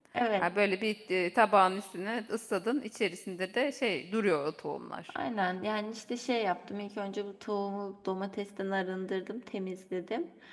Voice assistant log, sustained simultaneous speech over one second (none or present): none